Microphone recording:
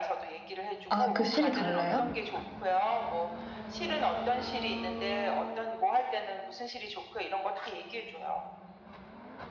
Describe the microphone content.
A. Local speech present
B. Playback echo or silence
A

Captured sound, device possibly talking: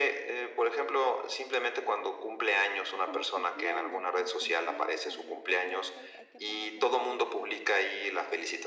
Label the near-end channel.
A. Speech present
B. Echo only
A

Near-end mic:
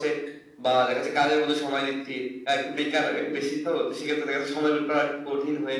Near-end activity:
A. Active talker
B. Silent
B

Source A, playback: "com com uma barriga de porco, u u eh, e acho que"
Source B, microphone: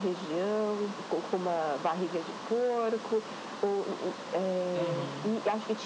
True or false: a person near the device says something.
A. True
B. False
A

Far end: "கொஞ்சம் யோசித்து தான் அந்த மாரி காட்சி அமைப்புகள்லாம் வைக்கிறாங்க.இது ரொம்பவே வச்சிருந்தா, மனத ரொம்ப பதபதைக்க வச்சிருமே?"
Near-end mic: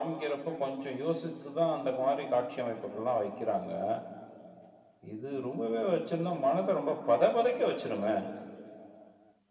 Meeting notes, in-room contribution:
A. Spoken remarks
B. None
B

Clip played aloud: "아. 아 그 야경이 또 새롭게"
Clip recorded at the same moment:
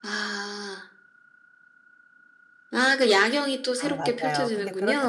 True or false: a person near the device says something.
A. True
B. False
A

